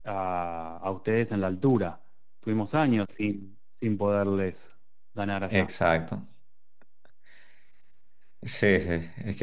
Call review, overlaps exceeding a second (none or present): none